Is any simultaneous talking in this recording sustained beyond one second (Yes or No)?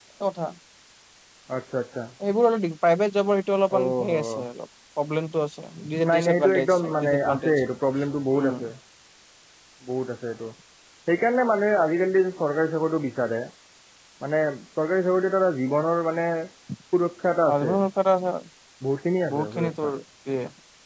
Yes